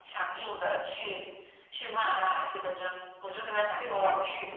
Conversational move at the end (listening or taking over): taking over